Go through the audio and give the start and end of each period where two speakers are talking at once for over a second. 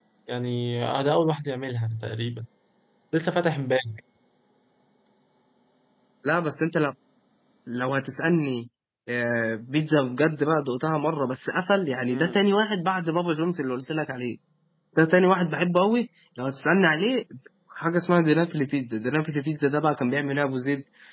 none

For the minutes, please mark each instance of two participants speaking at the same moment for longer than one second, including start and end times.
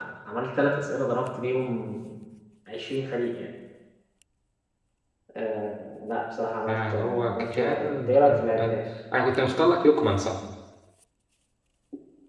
6.7-8.8

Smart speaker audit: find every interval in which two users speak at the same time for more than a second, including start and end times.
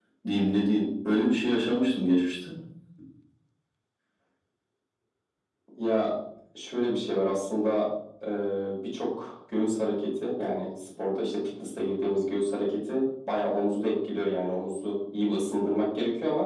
none

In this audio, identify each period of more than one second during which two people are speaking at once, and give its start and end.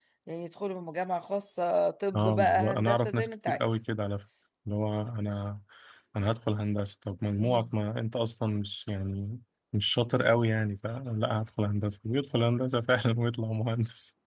2.1-3.7

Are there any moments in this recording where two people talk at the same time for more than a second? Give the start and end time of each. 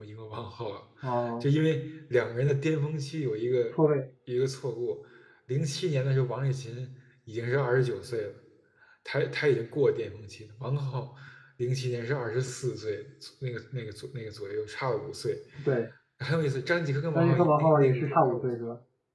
17.1-18.5

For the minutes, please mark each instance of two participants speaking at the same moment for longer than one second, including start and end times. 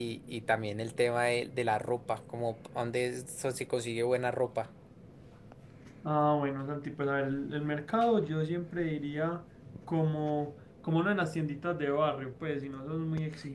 none

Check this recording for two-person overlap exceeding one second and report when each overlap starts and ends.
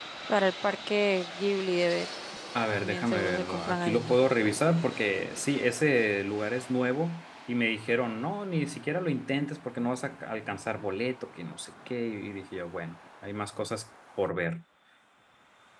2.7-4.2

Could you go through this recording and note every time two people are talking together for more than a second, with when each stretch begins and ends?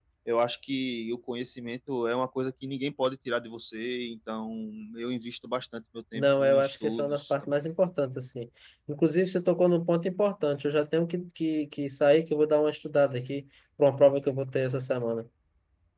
6.2-7.7

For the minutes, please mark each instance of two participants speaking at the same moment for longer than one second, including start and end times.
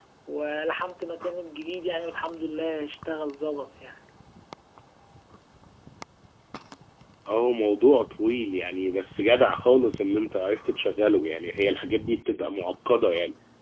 none

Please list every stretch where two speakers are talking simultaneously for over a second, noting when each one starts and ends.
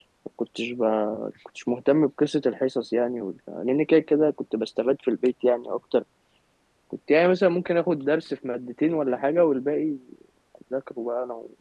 none

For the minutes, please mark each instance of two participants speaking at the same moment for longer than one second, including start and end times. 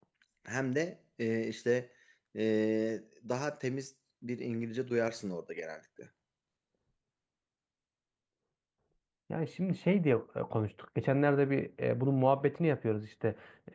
none

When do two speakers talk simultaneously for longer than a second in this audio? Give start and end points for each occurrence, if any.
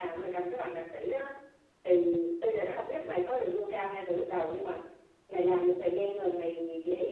none

